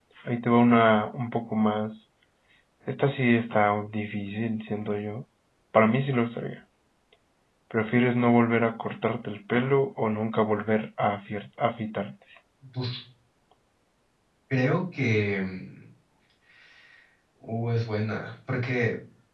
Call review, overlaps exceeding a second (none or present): none